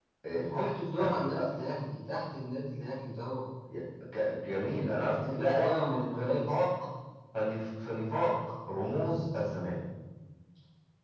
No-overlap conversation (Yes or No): No